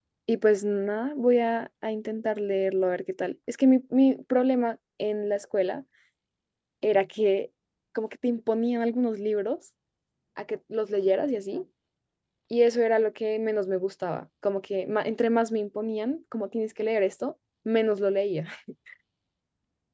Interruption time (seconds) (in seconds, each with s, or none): none